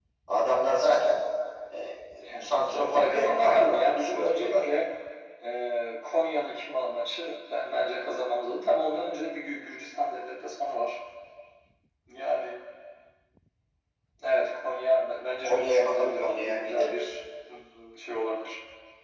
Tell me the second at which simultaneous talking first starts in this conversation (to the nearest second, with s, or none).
2 s